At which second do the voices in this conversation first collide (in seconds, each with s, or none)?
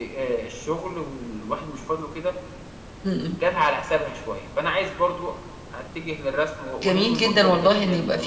6.8 s